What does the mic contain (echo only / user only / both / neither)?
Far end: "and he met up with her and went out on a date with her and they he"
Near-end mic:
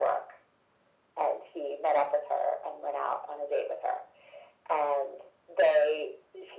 echo only